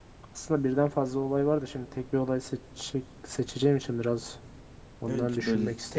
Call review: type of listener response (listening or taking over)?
taking over